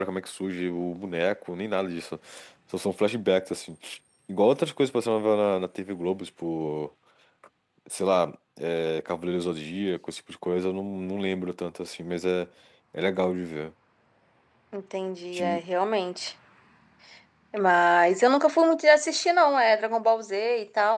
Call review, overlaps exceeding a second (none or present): none